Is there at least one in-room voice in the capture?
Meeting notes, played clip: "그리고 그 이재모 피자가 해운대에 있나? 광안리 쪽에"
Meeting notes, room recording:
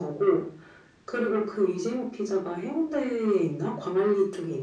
No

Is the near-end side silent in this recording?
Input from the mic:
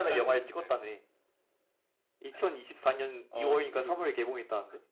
Yes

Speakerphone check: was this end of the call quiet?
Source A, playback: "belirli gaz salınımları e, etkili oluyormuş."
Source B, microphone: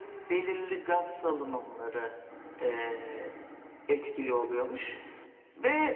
Yes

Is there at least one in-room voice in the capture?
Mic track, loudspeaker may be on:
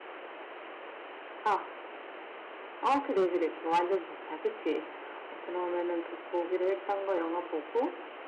Yes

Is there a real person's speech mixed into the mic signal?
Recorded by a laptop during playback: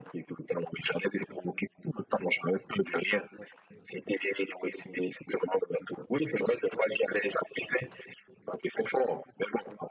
No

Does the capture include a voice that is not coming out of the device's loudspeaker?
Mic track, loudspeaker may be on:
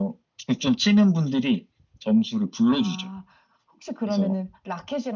No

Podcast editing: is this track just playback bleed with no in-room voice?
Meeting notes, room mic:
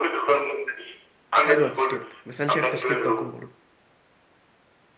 No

